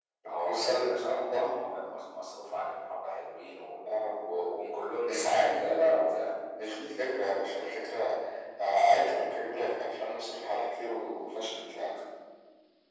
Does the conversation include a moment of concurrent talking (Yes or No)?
Yes